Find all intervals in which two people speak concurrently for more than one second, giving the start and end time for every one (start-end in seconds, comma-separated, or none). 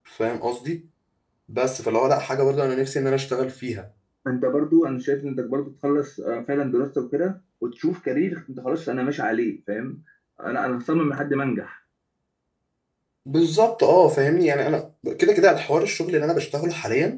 none